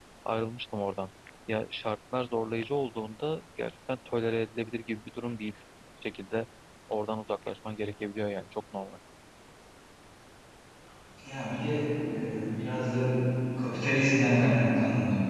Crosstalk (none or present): none